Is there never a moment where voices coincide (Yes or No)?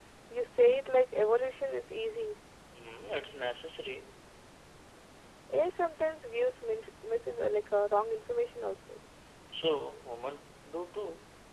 Yes